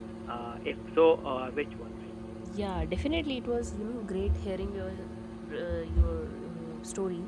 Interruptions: none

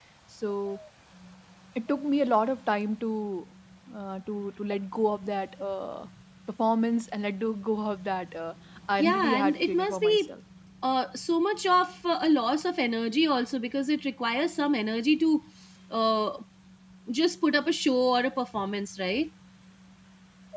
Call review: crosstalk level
present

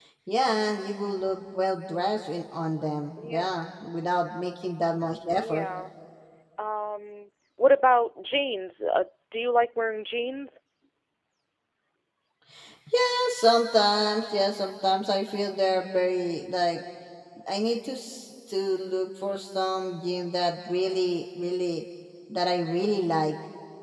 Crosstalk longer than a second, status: none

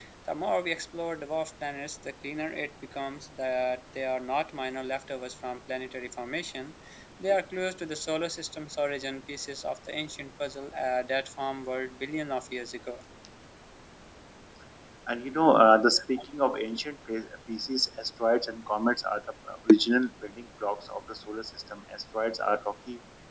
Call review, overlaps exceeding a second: none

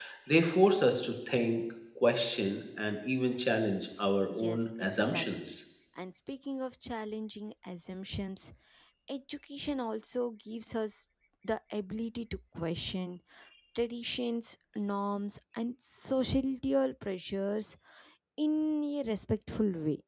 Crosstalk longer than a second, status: present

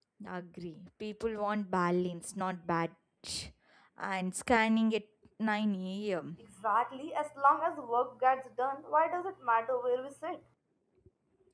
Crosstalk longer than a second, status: none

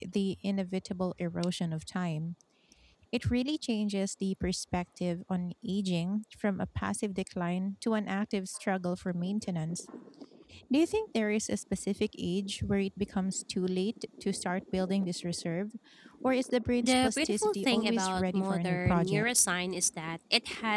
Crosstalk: present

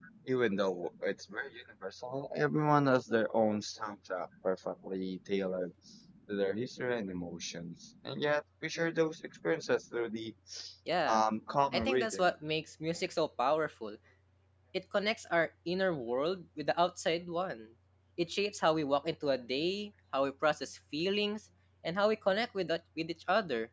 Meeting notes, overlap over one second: none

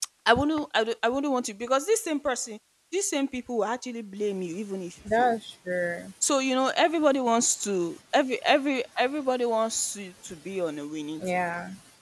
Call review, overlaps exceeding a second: none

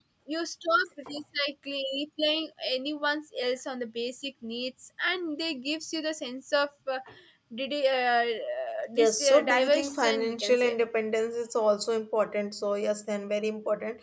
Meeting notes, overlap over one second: present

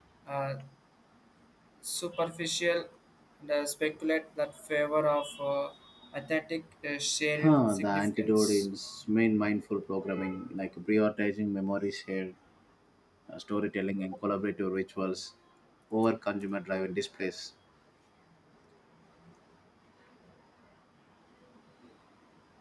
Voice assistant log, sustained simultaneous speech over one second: present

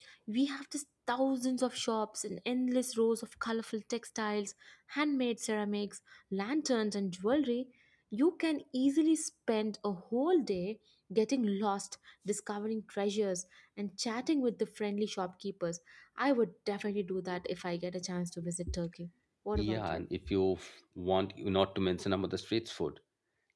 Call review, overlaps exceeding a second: none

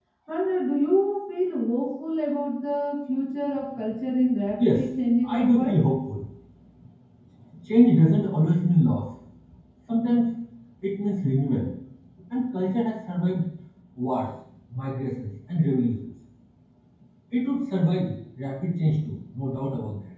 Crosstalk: present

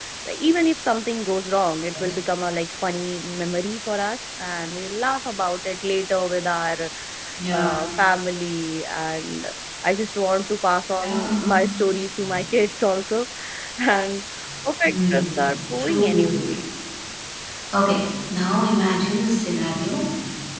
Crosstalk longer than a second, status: present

